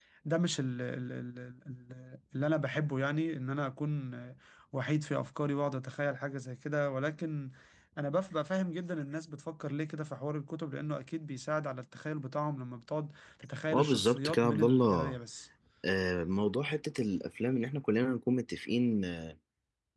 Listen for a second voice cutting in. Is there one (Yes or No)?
Yes